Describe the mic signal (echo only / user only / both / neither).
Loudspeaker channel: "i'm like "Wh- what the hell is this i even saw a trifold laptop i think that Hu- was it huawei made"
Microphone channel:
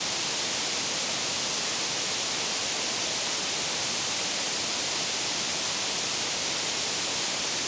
neither